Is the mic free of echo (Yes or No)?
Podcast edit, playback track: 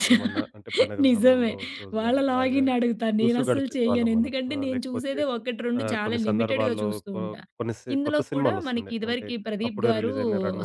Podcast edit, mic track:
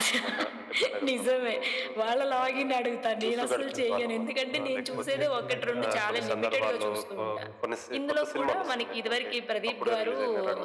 No